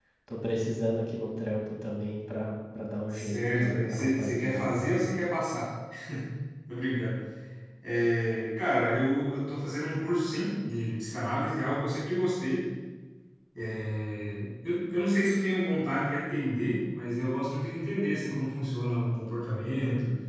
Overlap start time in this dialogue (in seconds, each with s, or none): 3.1 s